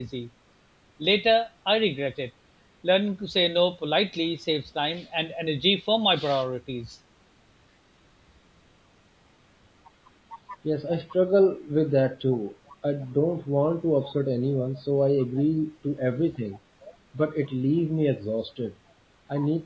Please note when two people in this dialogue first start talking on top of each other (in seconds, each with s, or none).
none